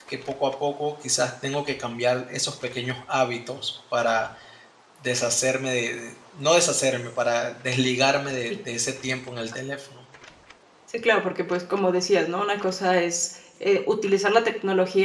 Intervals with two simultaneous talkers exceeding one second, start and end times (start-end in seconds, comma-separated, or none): none